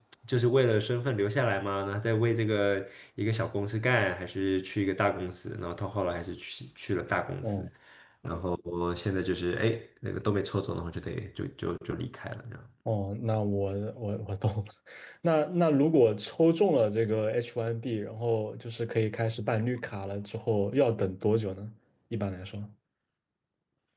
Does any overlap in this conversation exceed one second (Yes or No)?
No